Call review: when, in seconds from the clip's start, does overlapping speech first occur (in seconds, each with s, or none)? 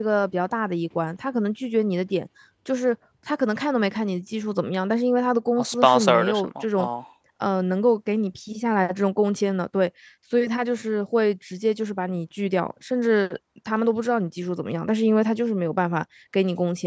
5.6 s